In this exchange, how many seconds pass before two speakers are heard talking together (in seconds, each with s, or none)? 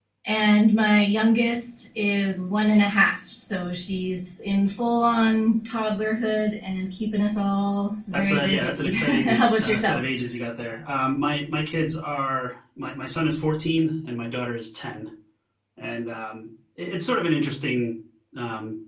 8.1 s